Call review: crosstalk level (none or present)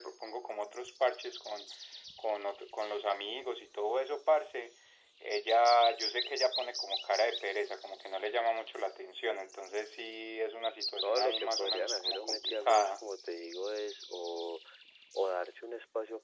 present